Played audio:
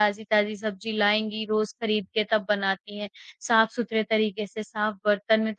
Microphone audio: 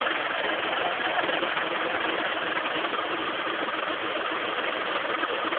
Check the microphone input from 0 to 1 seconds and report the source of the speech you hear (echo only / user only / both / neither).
neither